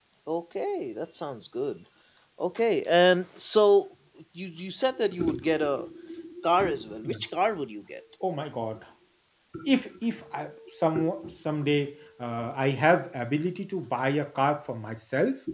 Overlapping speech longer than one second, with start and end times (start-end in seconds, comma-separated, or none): none